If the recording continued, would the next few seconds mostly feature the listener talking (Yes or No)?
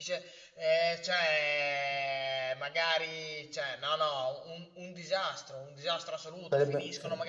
No